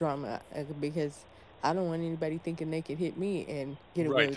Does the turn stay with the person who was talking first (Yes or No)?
No